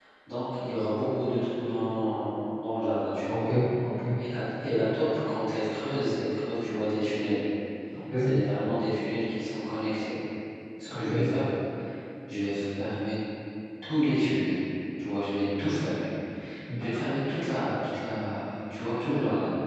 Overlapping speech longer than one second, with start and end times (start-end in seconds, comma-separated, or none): none